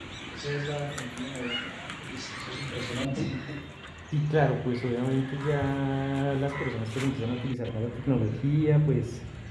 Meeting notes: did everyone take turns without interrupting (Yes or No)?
Yes